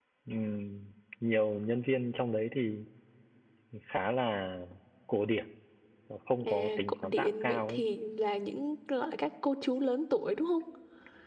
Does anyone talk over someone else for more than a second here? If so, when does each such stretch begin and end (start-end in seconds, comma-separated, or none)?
6.4-7.8